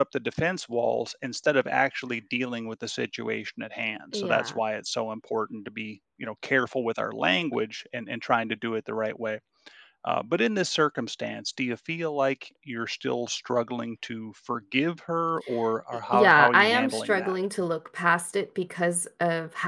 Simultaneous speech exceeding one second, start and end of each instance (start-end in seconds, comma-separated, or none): 16.1-17.4